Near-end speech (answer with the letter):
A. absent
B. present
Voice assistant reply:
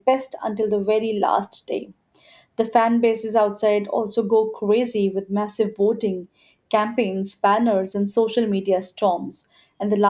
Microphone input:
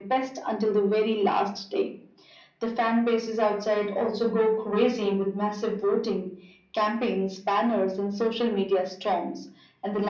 A